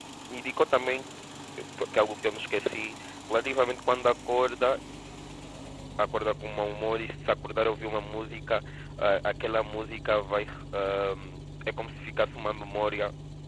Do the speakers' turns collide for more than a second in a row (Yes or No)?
No